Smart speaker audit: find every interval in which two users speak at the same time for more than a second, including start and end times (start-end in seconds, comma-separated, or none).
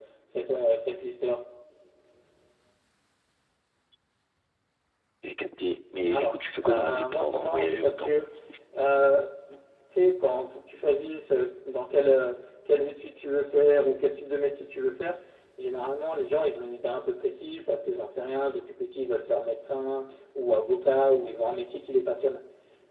6.1-8.2